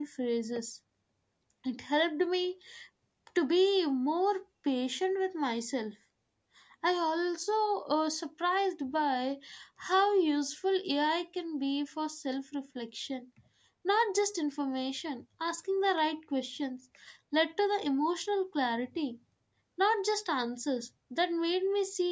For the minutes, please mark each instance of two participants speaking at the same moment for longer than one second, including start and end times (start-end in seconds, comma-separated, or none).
none